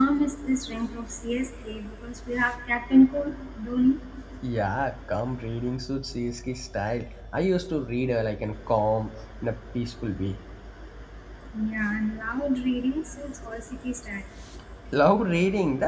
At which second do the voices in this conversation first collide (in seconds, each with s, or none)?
none